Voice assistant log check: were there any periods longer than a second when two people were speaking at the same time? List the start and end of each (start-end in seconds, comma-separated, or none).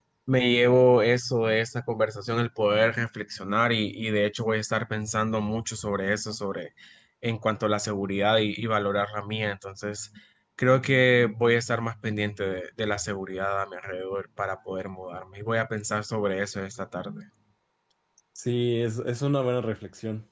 none